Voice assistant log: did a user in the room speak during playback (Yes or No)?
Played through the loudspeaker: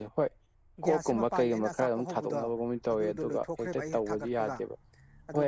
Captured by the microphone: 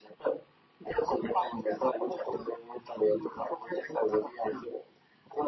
No